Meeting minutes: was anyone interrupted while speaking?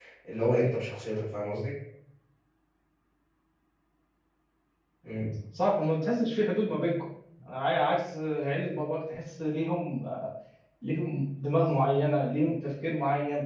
No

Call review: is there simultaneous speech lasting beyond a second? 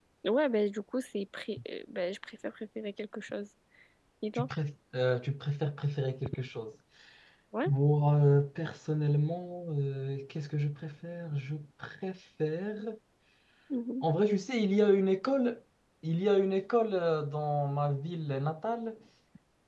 No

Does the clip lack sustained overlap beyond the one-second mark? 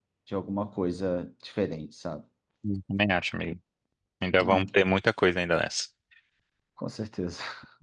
Yes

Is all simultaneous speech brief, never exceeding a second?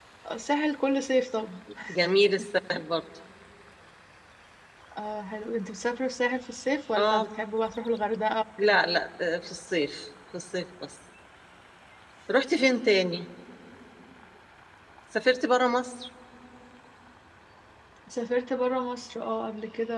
Yes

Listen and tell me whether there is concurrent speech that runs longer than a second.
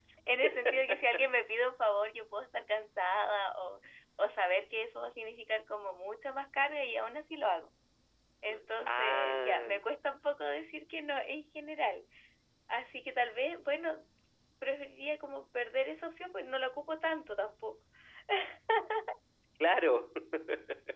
Yes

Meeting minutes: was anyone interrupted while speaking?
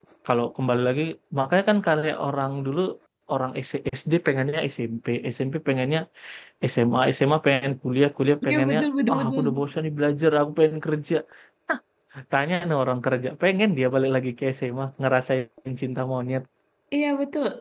Yes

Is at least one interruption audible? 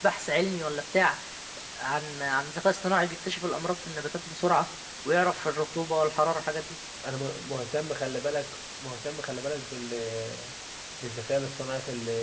No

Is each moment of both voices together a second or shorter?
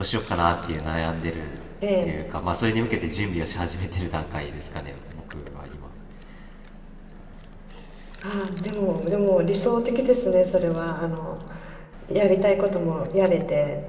Yes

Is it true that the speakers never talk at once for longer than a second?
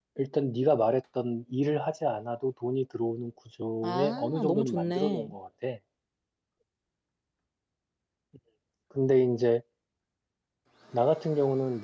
No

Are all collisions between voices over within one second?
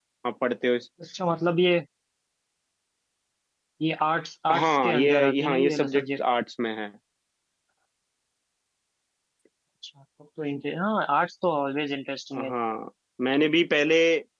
No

